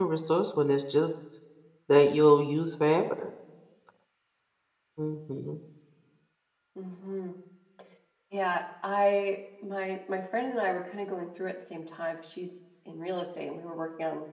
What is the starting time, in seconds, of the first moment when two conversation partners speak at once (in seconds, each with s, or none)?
none